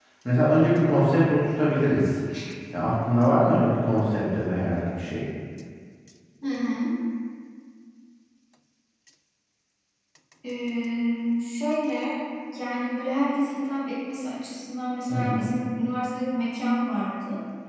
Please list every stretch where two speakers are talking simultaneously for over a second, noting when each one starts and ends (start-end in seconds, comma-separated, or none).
none